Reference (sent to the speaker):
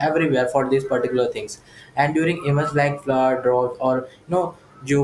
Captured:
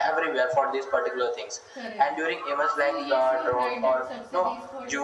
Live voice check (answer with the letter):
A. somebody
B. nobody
A